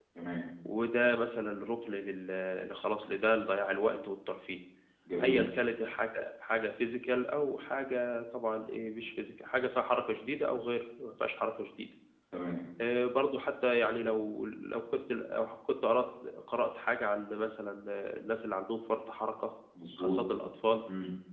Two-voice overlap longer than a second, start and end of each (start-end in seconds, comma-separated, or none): none